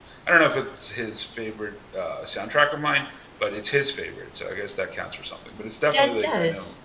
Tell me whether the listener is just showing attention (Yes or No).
Yes